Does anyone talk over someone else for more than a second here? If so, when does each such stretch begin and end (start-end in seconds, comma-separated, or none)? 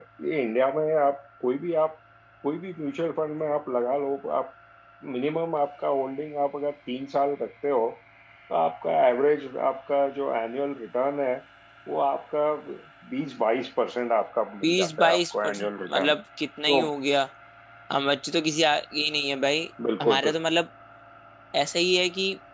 14.6-16.1